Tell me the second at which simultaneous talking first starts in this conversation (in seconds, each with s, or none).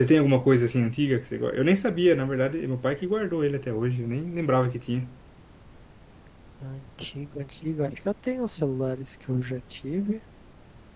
none